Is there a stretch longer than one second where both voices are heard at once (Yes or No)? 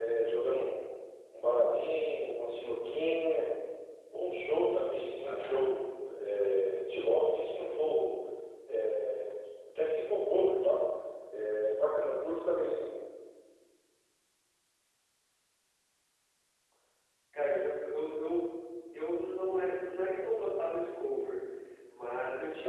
No